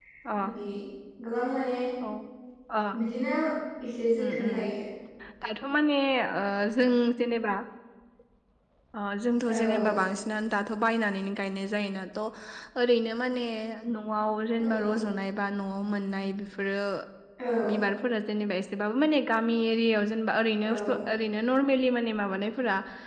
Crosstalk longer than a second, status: none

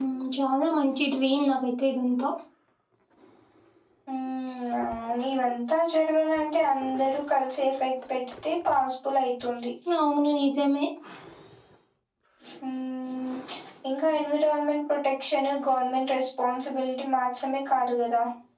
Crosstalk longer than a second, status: none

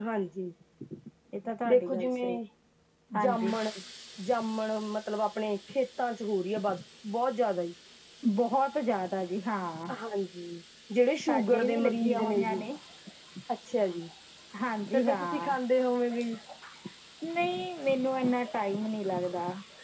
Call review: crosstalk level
present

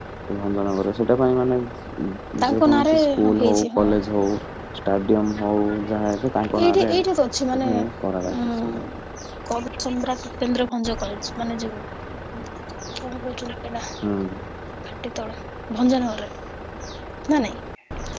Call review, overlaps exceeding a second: present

